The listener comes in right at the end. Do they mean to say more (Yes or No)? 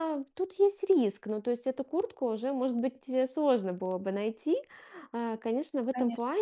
No